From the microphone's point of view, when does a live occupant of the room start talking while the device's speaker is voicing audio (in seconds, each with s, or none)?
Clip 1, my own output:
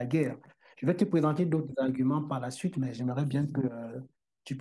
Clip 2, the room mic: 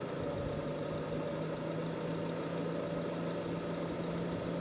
none